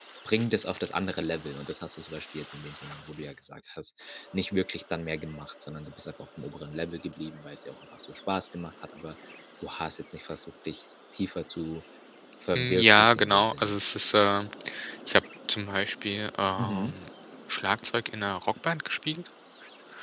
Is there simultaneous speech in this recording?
Yes, from 12.5 s

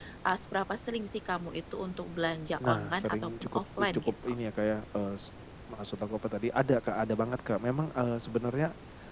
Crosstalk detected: Yes, from 2.6 s

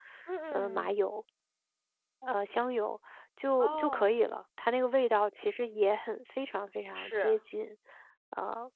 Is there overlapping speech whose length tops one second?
No

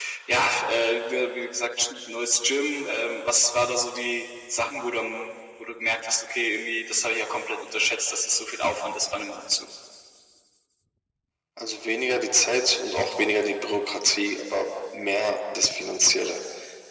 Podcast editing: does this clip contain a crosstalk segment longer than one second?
No

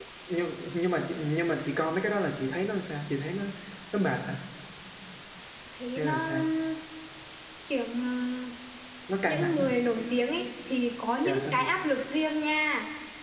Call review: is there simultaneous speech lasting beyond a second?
No

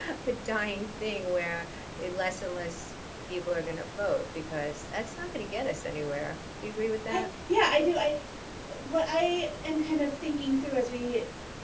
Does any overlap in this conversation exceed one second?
No

